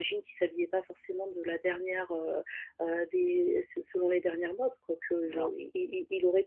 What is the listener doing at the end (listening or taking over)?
listening